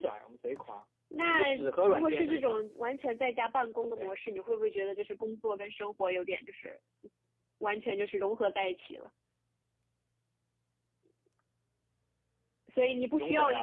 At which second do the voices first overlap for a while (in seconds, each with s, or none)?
1.3 s